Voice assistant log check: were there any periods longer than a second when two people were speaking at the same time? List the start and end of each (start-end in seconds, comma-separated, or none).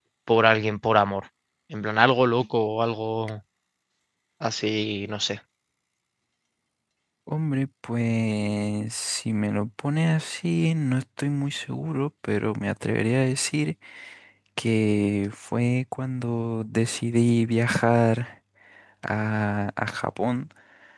none